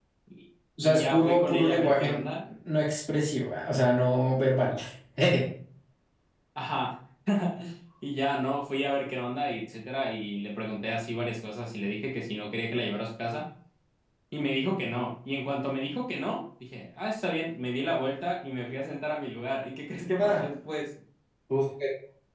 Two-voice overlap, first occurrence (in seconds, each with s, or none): 0.8 s